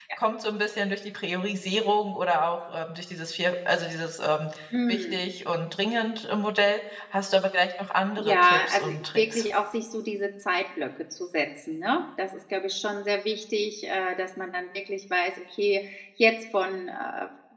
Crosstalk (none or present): present